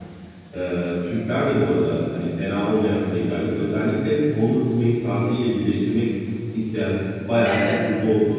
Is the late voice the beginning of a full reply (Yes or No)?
No